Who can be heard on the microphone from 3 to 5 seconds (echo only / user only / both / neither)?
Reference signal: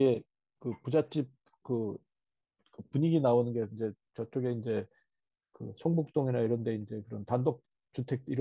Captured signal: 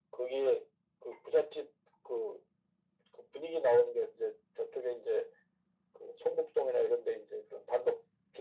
echo only